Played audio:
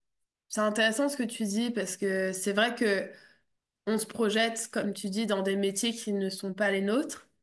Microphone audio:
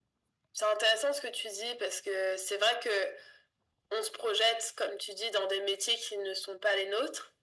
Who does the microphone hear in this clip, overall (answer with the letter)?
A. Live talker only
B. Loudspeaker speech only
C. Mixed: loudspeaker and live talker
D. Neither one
B